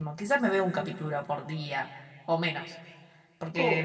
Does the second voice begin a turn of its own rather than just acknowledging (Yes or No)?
No